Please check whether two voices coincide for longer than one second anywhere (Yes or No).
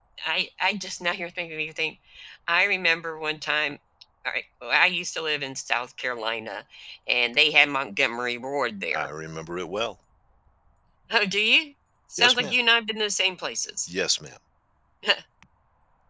No